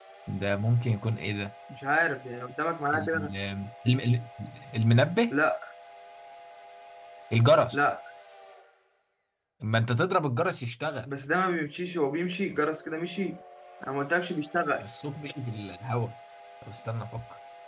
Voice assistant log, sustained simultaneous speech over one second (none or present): none